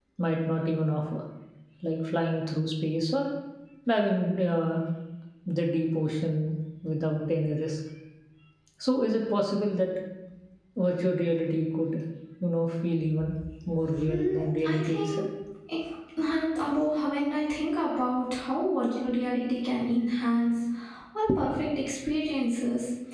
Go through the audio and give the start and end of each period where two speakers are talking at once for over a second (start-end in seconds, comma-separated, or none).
14.0-15.2